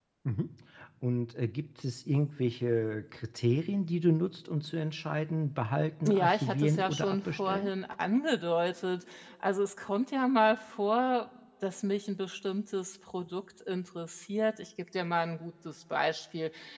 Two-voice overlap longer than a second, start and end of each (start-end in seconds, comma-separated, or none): 6.1-7.7